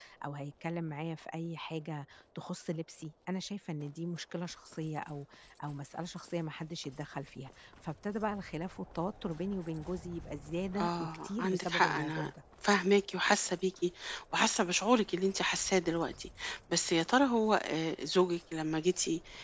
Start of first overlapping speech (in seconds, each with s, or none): 10.8 s